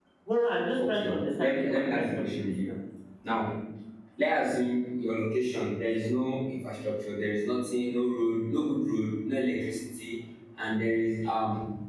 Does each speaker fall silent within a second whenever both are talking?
No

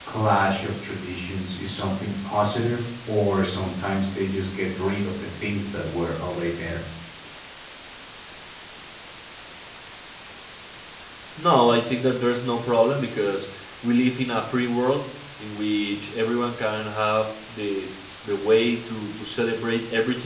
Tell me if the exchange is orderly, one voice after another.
Yes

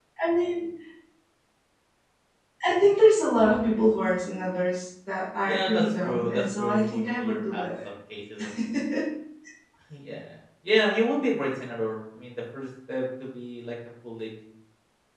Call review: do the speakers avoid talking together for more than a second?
No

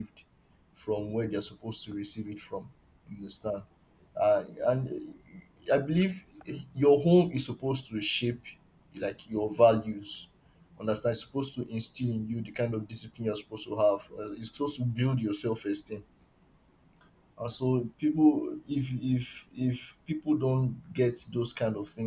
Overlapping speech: No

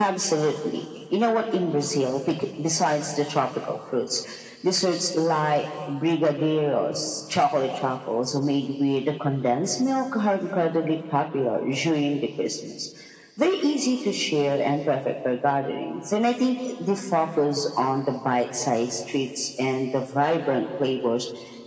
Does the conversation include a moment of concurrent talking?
No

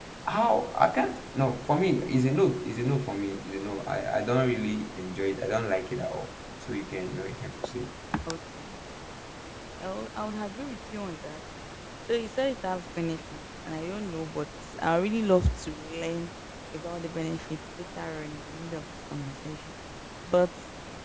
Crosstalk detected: No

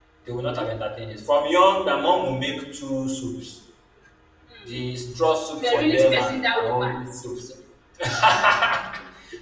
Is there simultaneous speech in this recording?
Yes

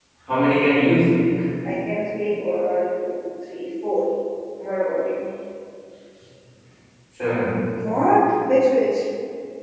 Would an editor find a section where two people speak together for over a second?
No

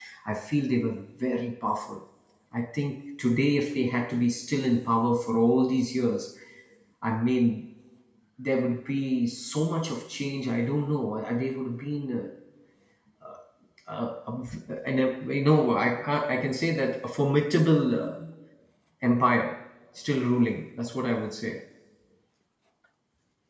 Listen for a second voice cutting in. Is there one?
No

